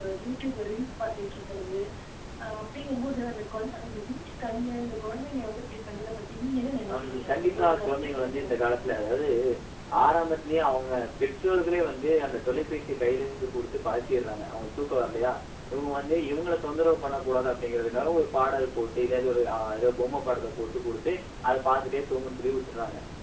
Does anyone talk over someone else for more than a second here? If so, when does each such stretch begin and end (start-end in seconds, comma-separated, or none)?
6.9-8.4